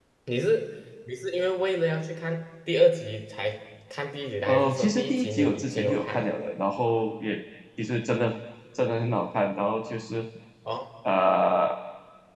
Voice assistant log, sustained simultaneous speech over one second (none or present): present